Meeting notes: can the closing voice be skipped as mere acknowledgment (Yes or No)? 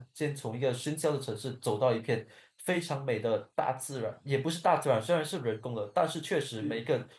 Yes